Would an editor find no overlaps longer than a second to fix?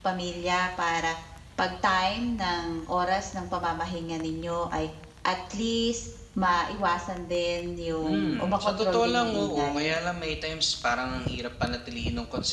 No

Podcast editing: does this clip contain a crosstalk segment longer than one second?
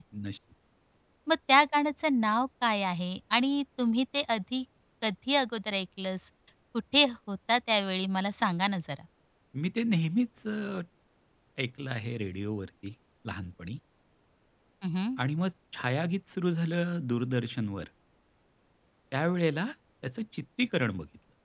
No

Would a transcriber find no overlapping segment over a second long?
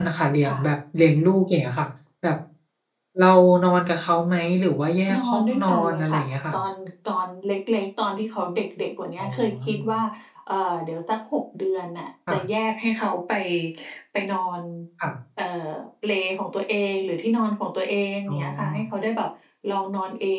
No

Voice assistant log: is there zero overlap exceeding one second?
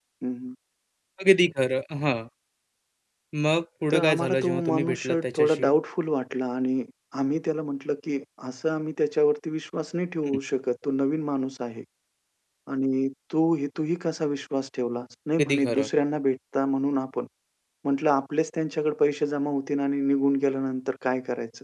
No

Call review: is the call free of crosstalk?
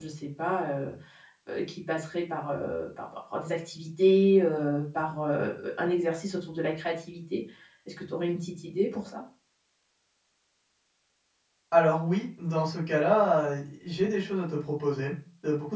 Yes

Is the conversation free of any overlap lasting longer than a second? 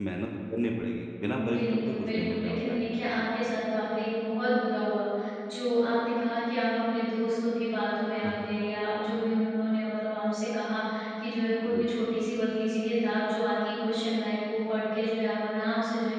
No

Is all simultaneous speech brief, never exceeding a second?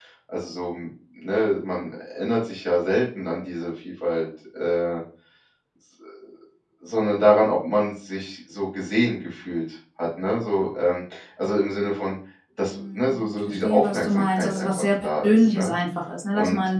No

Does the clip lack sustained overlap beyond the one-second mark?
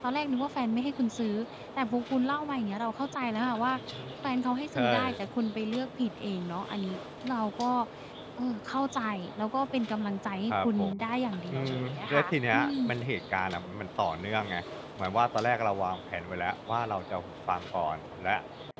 No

